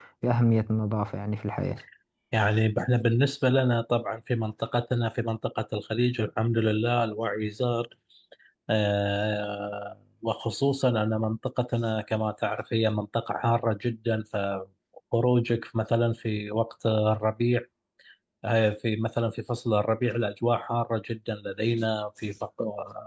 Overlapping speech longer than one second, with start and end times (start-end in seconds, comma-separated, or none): none